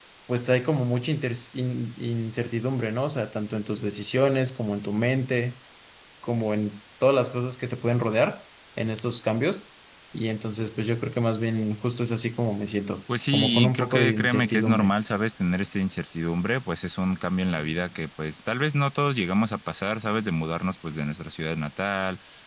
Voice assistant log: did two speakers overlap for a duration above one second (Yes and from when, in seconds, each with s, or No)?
Yes, from 13.3 s